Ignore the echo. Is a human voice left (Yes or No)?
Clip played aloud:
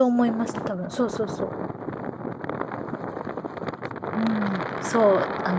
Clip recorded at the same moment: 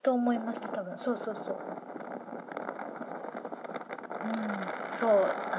No